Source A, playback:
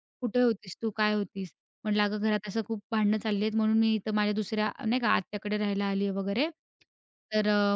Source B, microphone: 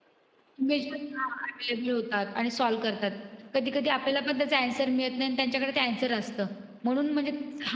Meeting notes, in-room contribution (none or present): present